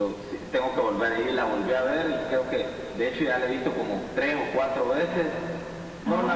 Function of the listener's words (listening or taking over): listening